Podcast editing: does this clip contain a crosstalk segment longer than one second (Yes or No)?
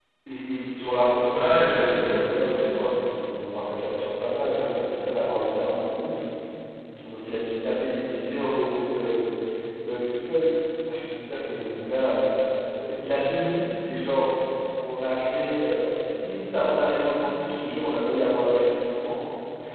Yes